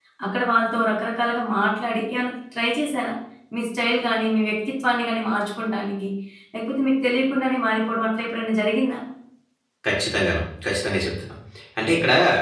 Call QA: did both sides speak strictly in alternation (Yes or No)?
Yes